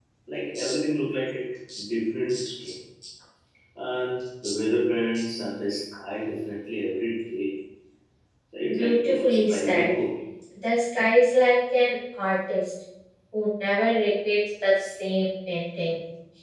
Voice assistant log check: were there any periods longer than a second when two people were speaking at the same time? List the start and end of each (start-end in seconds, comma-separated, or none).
8.7-9.9